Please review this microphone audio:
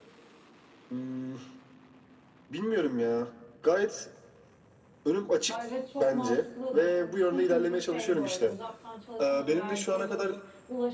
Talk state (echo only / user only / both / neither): both